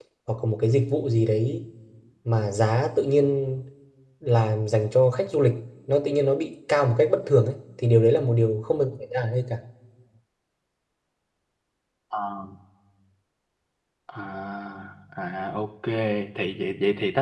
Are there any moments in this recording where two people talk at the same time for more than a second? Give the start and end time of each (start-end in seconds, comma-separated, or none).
none